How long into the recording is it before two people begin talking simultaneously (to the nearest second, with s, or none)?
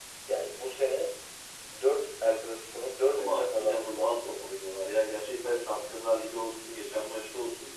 3 s